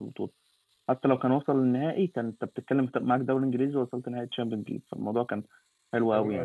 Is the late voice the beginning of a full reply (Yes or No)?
No